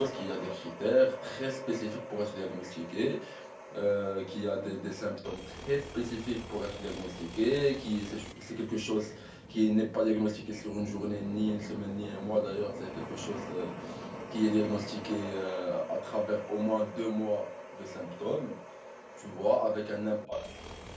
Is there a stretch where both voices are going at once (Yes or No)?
No